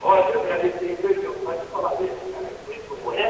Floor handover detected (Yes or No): Yes